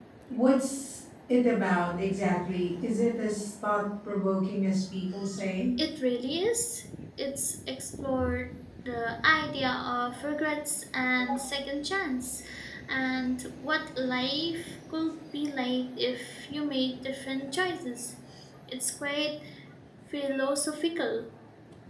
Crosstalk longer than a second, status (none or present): none